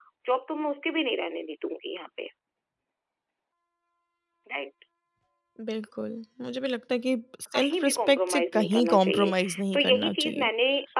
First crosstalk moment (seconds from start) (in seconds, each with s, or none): 7.5 s